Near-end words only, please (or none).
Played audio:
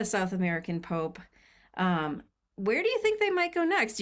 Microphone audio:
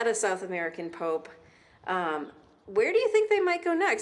none